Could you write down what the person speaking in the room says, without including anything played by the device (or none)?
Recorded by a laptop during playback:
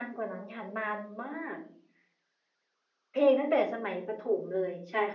none